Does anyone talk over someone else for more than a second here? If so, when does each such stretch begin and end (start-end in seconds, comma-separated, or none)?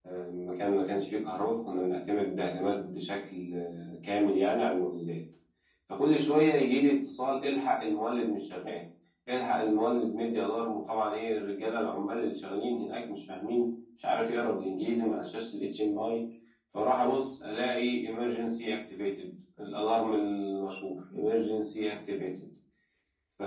none